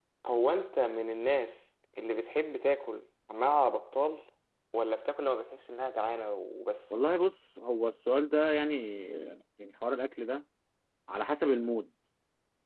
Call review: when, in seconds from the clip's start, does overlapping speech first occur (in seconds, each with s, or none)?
none